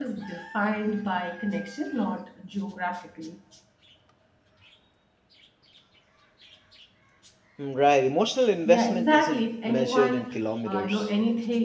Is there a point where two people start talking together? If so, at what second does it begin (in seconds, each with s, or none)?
8.7 s